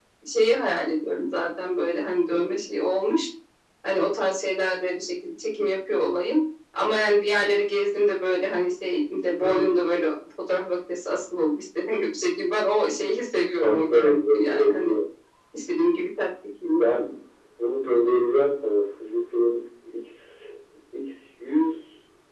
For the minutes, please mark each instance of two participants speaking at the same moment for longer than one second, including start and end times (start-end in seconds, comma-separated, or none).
13.6-14.9